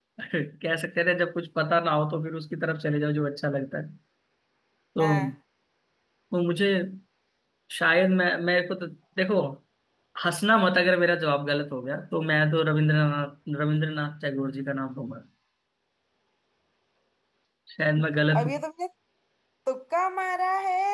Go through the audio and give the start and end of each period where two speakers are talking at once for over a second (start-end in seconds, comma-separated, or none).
none